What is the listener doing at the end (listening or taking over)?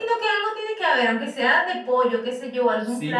taking over